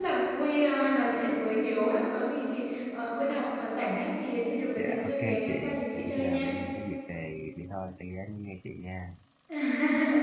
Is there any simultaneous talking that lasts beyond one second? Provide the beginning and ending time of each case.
4.8-6.5

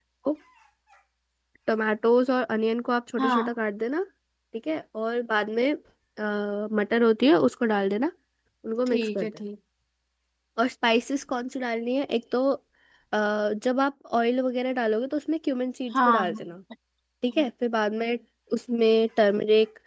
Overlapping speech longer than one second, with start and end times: none

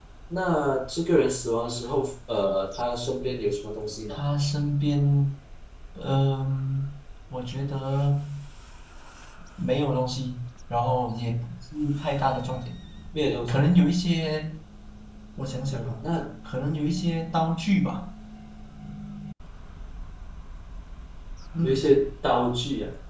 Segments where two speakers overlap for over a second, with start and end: none

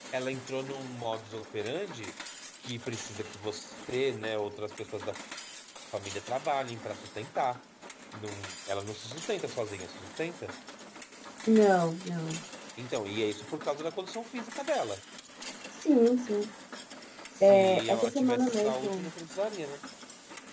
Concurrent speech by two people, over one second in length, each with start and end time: 17.4-19.1

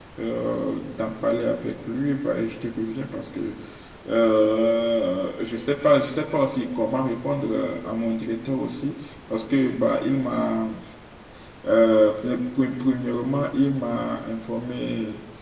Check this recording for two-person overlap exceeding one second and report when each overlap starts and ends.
none

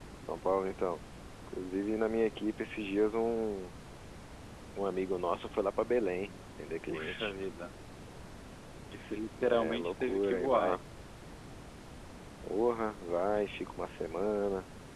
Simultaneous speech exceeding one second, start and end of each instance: 9.5-10.8

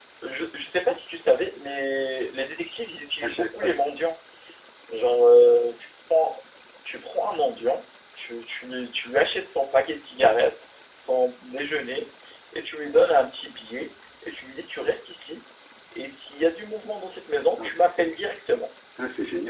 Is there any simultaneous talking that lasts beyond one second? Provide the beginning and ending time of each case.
none

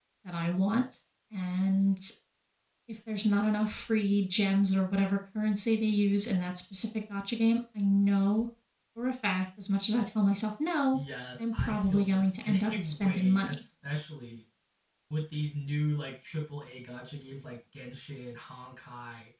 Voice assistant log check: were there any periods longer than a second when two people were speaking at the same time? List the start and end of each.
11.4-13.5

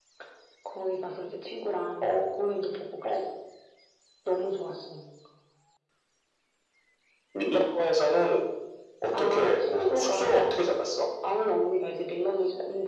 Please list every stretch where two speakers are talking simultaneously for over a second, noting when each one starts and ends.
9.1-10.6

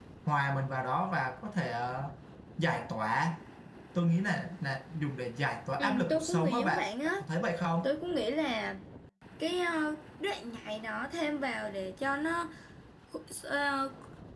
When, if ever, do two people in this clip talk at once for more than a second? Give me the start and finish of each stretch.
5.8-7.1

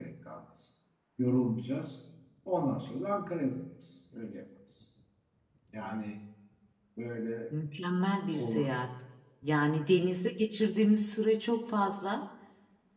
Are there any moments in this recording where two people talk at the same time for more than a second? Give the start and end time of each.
none

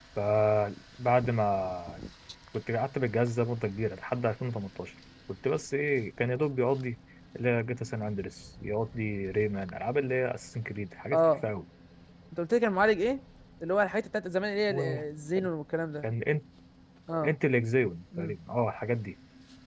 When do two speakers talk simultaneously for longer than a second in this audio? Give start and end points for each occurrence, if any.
none

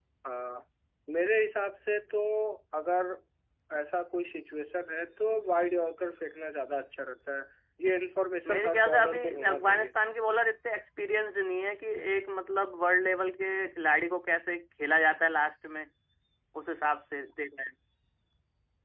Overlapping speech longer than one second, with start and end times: 8.4-9.9

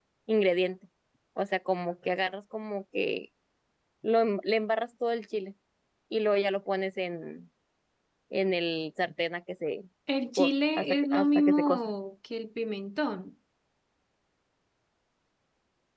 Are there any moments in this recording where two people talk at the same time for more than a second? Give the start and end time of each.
10.4-11.8

